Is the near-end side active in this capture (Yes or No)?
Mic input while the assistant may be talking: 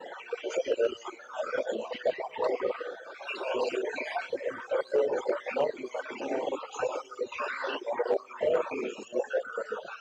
No